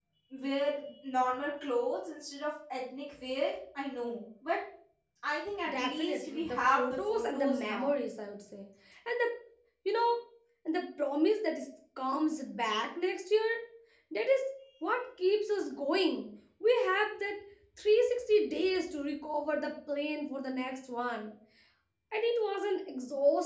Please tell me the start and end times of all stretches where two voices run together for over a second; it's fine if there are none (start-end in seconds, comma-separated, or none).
5.7-7.9